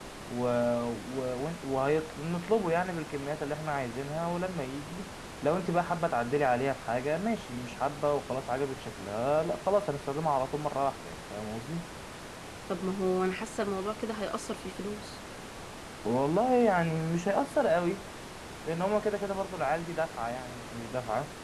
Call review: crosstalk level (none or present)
none